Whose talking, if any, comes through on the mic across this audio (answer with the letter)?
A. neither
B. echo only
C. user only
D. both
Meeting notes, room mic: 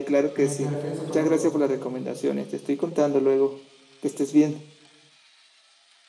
D